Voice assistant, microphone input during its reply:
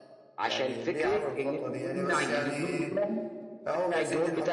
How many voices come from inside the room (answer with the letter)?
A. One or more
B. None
B